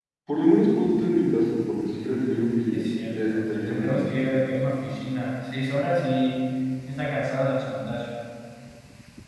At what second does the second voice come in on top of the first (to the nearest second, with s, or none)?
3 s